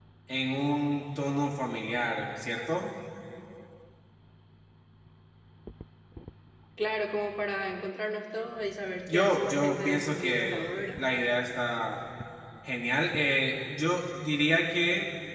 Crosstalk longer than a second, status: present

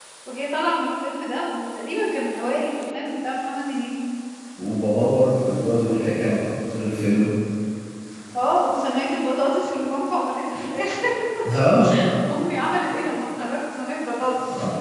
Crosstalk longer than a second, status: none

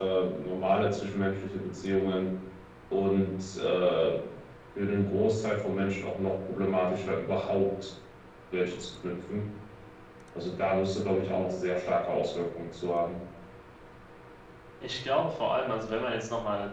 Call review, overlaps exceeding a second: none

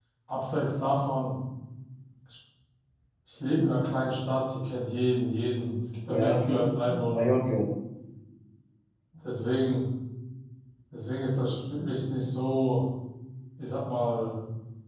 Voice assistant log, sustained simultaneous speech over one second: present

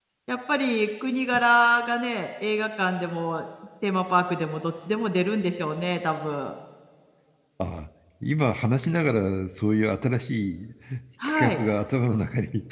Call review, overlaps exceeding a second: none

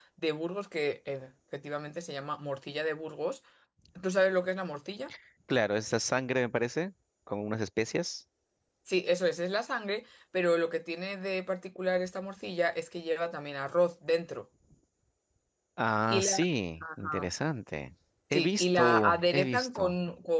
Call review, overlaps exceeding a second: present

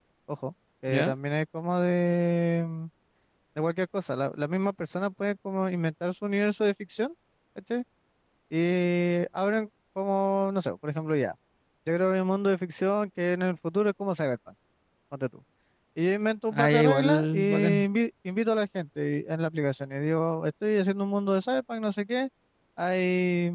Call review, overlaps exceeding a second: present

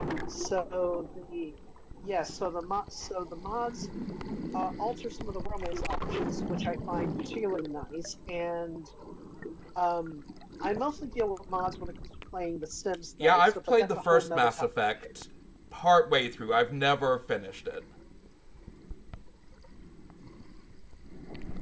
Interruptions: present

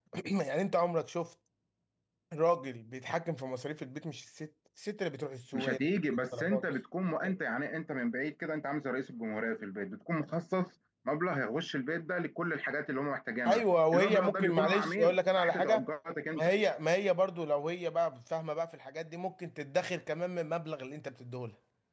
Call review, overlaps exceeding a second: present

